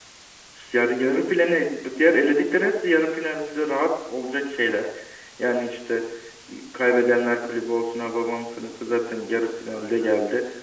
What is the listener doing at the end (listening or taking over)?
listening